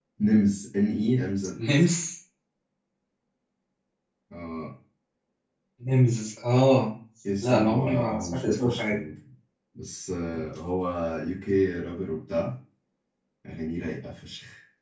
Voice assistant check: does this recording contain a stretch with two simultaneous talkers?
Yes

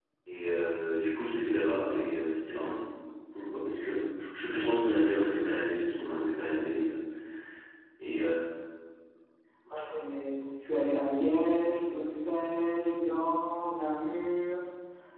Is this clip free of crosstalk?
Yes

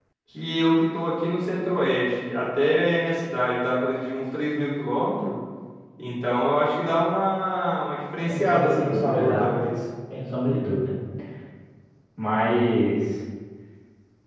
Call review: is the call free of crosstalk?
No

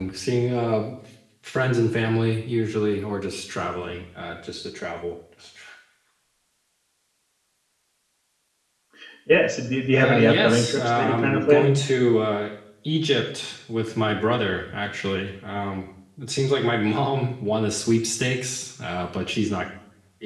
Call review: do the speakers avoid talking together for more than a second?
No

